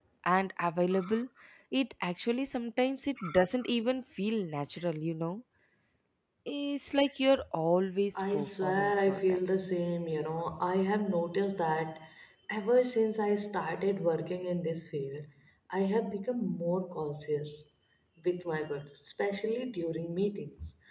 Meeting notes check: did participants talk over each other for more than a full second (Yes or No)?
Yes